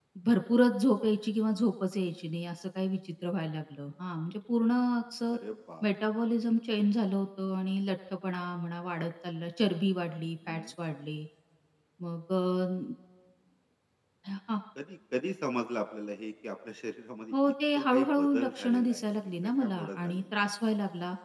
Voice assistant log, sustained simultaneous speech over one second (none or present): present